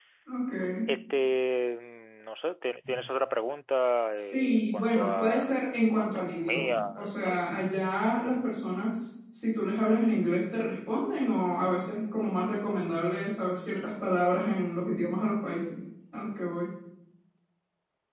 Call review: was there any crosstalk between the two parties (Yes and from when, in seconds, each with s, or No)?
Yes, from 4.1 s